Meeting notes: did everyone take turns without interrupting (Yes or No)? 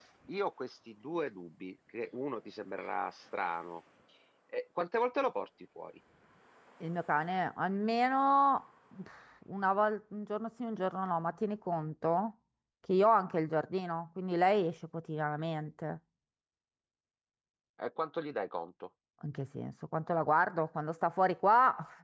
Yes